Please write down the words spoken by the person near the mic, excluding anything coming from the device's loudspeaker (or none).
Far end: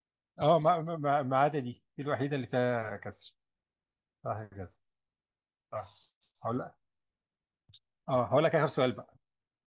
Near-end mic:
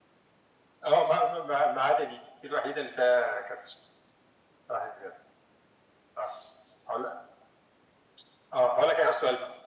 none